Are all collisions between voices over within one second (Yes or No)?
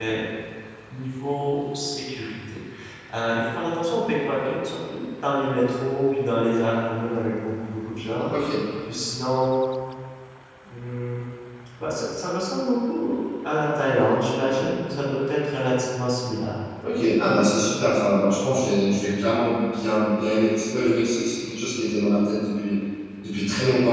Yes